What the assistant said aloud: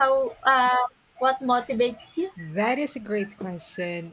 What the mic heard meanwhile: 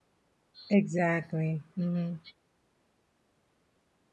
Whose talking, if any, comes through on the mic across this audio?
user only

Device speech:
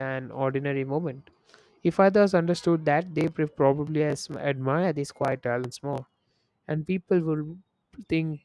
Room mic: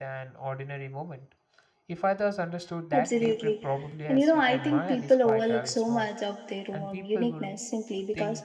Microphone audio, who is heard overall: both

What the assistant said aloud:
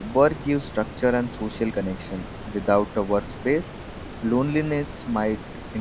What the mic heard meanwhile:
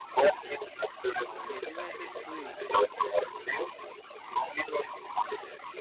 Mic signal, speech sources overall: both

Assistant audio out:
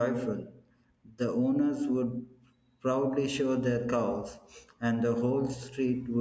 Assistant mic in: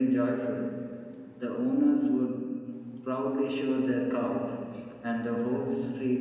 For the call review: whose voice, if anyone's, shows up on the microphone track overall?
echo only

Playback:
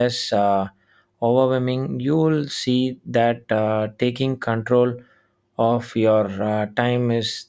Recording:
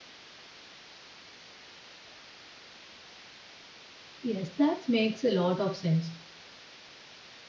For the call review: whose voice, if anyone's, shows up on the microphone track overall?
user only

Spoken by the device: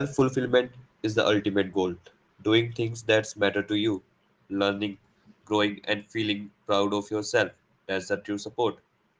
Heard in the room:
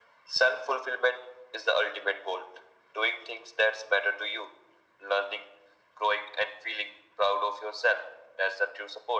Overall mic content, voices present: echo only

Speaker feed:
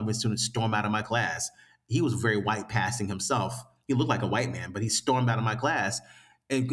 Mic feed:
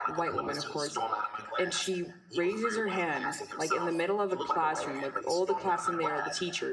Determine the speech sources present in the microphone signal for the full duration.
both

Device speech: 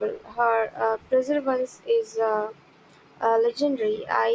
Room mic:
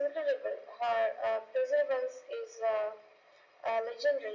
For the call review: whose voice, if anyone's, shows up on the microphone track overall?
echo only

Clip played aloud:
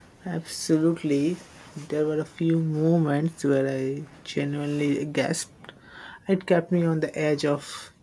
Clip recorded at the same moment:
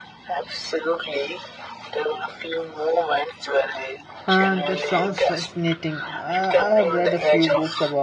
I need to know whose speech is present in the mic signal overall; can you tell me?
both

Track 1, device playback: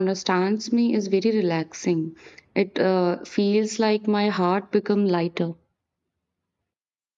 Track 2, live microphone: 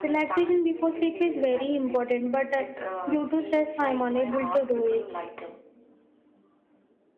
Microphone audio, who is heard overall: both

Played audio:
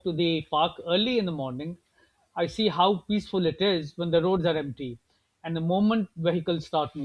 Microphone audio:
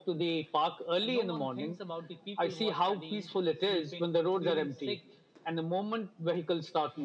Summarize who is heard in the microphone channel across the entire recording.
both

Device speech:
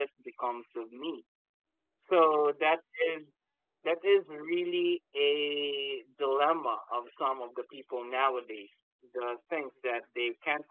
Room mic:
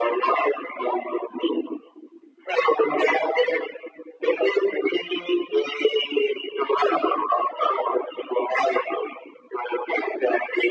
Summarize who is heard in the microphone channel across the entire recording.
echo only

